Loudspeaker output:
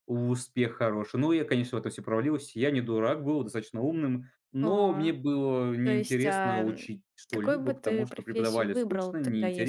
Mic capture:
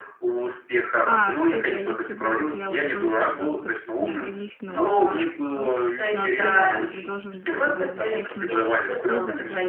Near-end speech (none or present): present